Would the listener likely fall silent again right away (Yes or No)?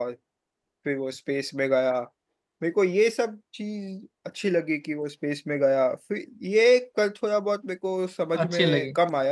No